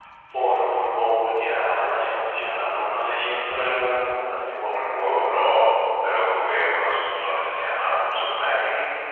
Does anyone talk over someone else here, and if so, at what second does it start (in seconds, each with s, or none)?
none